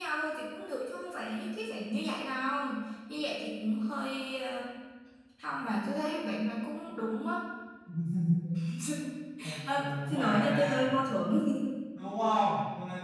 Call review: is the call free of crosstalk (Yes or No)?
No